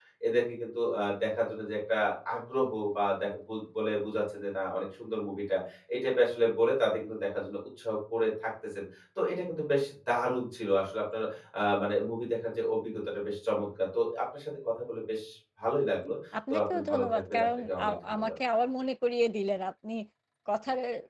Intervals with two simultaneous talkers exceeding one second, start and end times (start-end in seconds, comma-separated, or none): 16.5-18.3